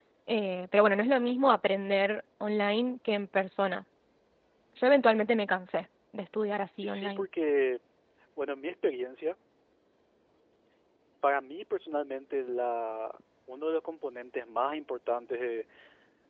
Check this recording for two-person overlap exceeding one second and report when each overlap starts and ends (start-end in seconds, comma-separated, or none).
none